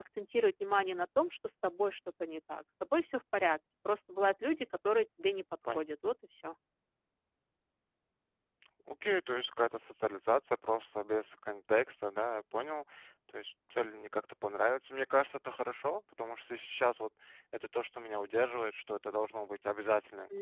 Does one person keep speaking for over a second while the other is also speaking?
No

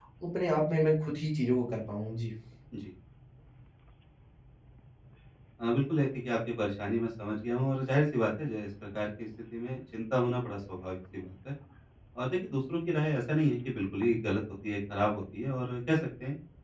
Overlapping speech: No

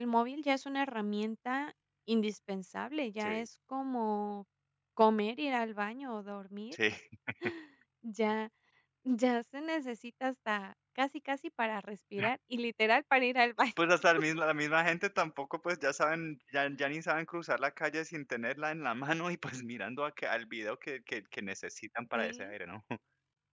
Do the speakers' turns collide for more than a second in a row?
No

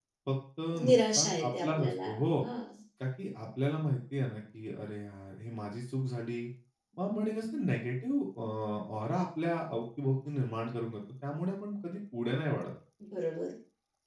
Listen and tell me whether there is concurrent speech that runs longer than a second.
Yes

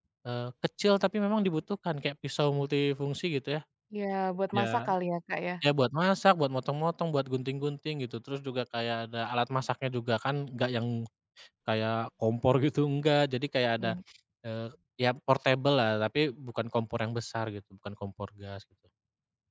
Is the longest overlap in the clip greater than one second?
No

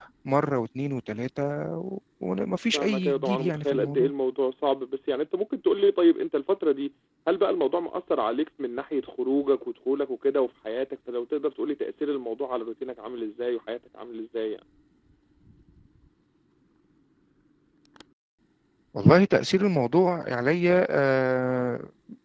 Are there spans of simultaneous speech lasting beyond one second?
Yes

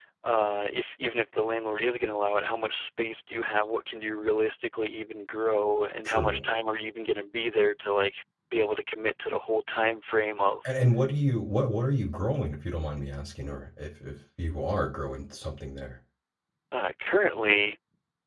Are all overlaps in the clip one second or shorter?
Yes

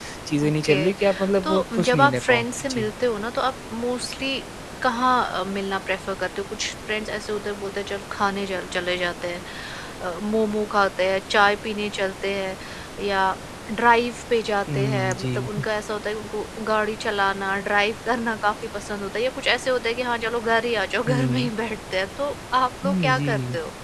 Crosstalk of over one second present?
Yes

